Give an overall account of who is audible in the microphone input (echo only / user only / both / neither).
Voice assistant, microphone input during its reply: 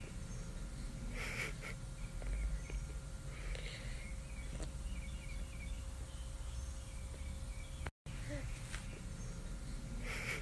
neither